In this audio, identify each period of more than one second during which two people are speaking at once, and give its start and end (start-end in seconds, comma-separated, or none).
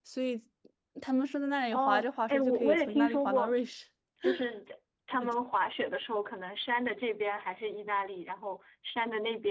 1.7-3.6